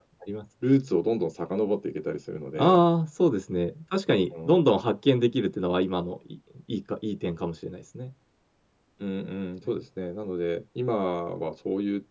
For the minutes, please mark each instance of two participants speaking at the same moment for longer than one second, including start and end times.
none

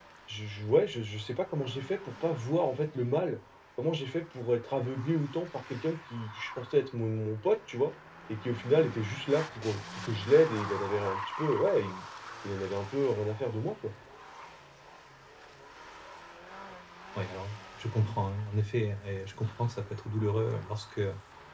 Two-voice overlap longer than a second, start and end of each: none

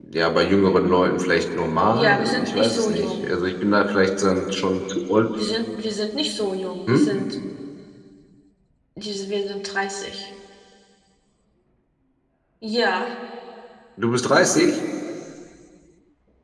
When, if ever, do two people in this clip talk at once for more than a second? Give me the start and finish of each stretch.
1.9-3.4

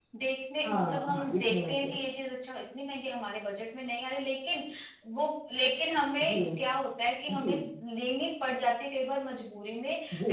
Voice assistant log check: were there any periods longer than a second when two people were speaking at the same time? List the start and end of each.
0.6-1.9

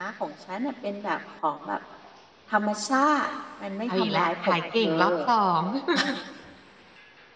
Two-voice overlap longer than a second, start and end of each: 3.9-5.1

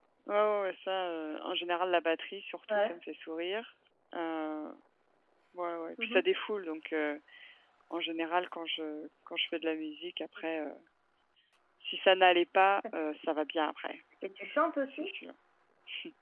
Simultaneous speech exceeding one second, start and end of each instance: none

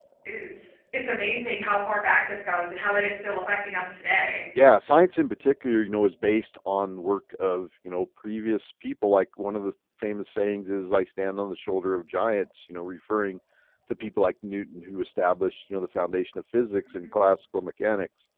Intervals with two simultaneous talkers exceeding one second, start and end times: none

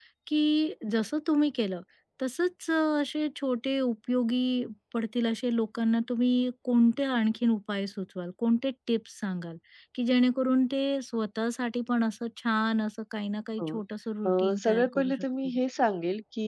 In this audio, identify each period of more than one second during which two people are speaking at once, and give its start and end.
14.3-15.5

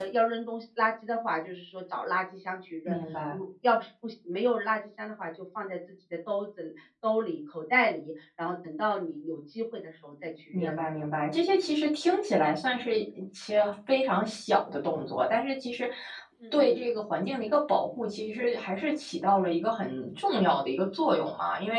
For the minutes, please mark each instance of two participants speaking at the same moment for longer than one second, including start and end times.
none

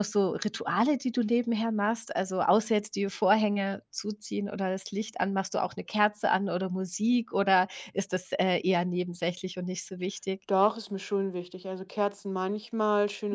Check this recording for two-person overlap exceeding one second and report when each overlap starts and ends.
none

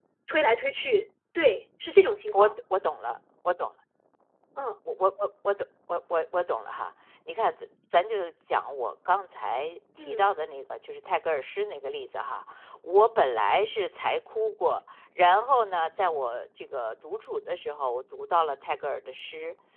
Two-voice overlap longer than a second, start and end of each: none

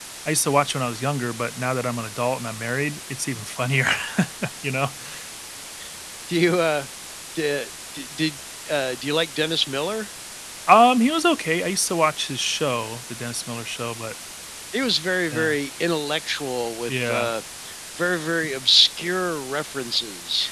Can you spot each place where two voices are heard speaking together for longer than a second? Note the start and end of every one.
none

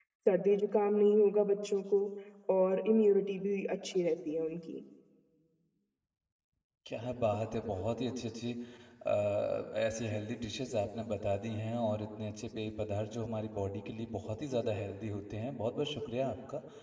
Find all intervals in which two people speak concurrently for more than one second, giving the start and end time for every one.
none

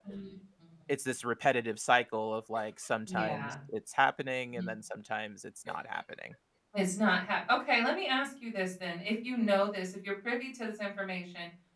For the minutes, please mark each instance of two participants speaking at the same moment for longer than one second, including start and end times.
none

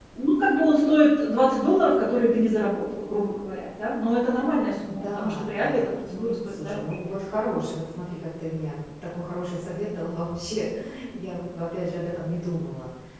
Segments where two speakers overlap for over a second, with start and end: 4.9-6.9

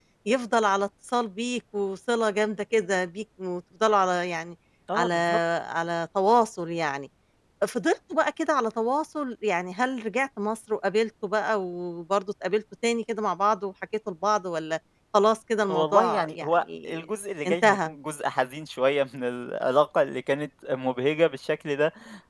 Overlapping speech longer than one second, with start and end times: 15.7-17.0

